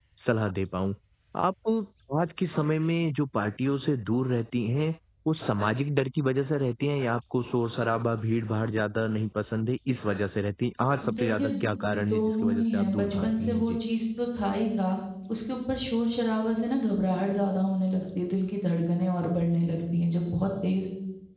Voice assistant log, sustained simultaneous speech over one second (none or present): present